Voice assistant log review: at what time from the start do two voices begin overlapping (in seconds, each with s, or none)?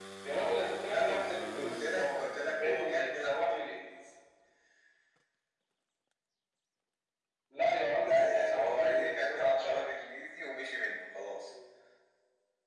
0.9 s